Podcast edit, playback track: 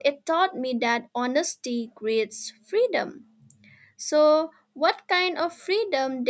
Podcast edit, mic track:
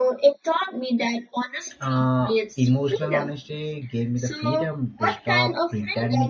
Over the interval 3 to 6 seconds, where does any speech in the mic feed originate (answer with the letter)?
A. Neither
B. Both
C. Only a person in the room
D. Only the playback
B